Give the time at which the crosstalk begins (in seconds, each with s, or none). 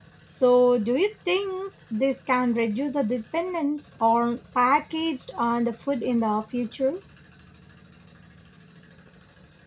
none